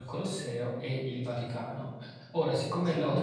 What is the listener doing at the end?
listening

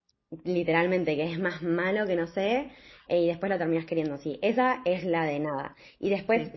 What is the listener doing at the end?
listening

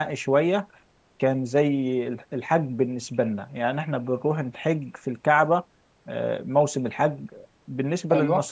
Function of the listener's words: listening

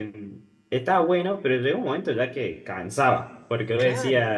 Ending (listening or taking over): listening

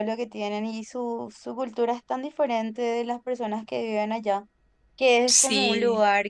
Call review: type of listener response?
listening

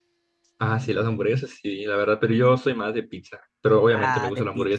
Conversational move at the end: taking over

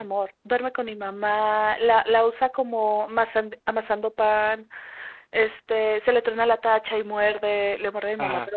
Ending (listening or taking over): listening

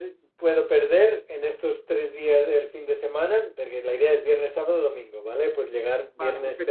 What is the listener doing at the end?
listening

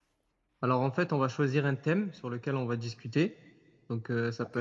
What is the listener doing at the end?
listening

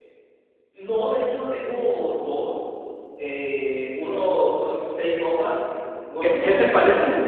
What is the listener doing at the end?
taking over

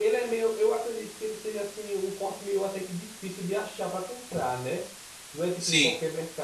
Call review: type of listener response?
listening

